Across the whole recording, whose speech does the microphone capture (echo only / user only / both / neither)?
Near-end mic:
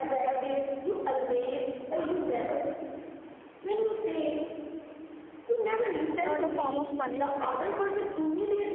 both